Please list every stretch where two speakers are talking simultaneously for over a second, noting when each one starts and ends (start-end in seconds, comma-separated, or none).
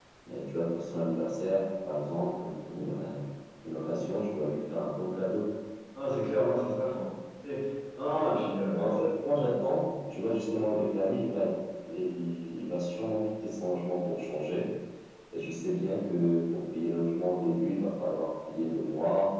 none